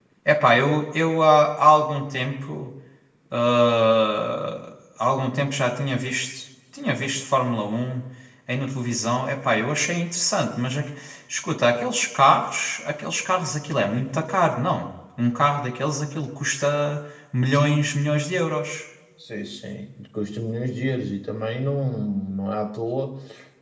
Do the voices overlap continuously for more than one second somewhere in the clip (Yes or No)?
No